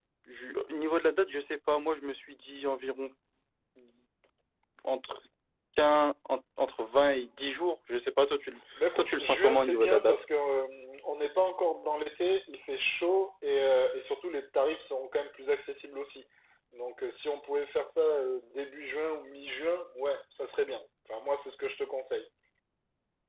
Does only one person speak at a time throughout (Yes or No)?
No